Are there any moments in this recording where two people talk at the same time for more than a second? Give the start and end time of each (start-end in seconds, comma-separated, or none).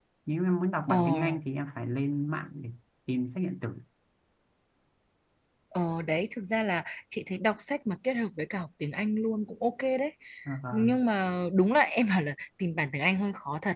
none